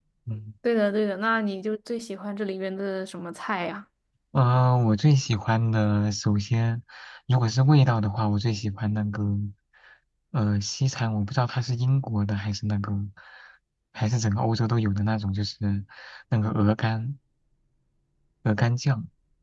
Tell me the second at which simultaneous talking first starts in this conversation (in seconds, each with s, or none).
none